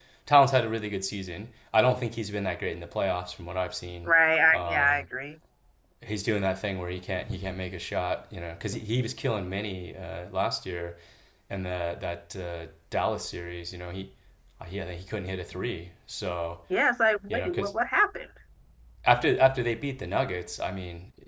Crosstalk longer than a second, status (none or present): none